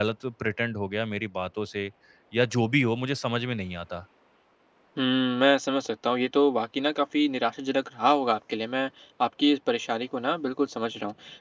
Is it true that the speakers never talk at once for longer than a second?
Yes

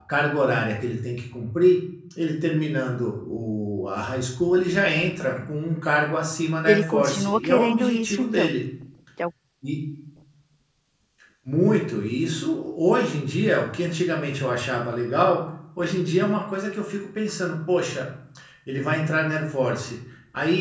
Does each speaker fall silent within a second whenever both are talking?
No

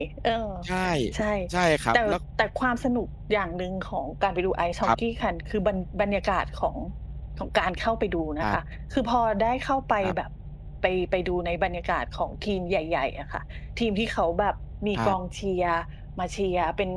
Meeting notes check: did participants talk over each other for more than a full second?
No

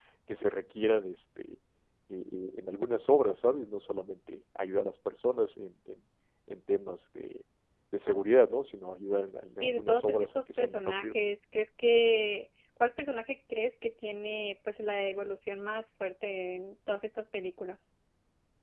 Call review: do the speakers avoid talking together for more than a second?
No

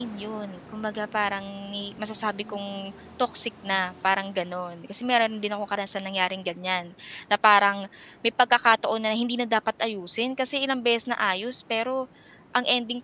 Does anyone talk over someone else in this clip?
No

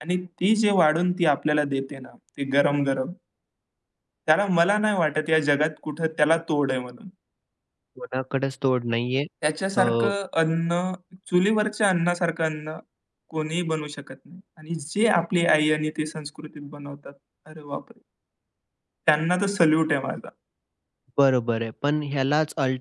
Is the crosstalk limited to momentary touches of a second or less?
Yes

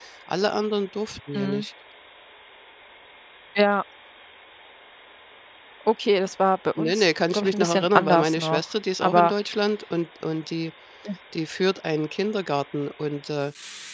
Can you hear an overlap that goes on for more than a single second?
Yes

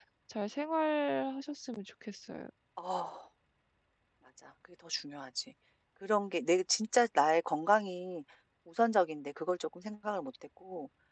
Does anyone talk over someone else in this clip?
No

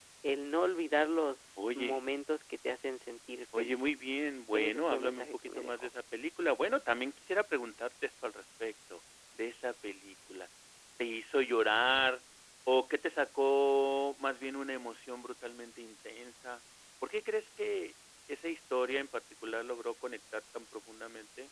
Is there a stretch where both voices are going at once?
Yes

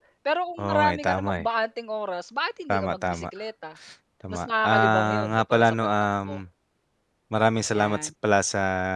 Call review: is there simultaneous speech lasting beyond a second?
Yes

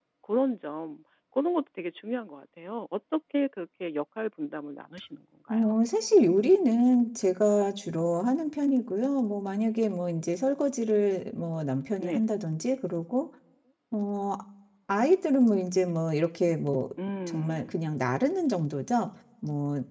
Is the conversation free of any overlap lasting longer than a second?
Yes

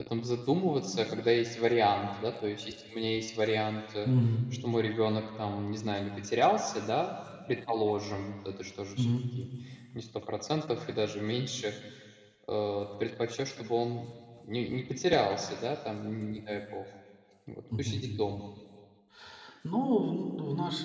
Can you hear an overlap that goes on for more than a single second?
No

